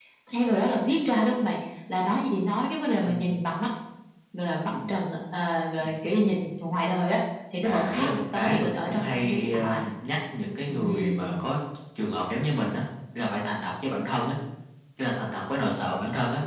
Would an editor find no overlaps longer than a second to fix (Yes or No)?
No